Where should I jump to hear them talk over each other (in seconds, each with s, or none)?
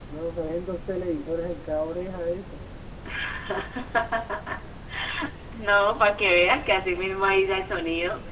none